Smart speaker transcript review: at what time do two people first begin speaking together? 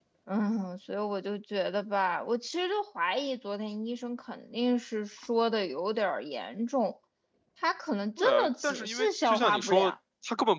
8.2 s

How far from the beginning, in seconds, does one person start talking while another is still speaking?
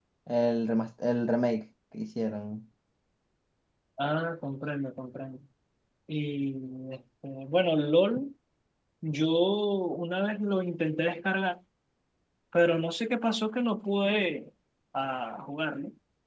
none

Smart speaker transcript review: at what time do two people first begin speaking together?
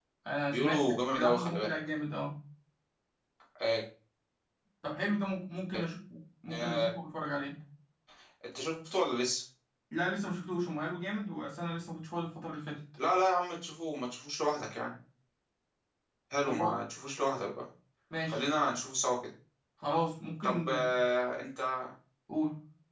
0.5 s

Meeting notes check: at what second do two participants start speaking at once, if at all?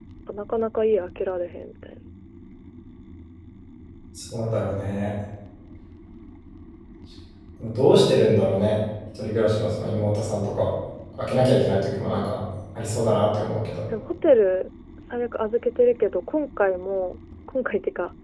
none

